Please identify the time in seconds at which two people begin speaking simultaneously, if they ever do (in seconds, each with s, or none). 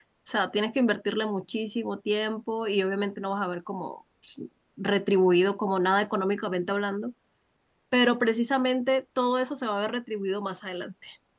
none